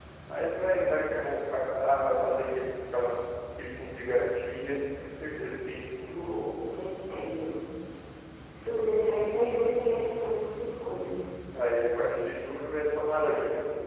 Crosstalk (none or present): none